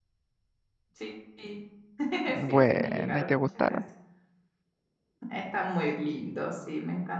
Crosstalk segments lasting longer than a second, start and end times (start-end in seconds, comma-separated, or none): 2.5-3.8